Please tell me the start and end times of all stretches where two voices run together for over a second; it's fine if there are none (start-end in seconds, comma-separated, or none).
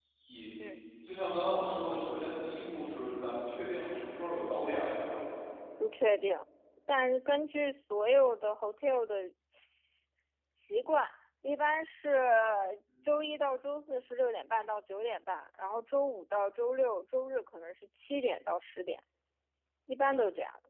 none